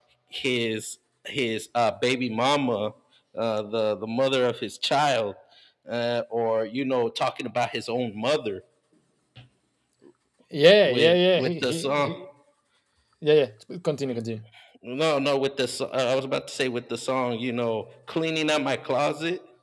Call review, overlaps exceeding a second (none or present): present